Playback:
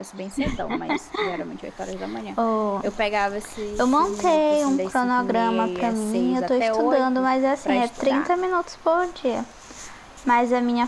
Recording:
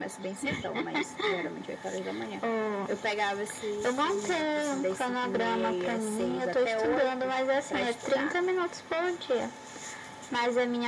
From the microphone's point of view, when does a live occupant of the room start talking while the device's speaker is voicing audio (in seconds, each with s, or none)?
none